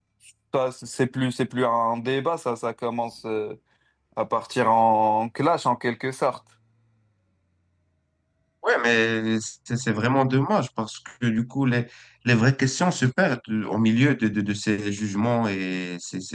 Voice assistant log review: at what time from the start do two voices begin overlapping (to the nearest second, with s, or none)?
none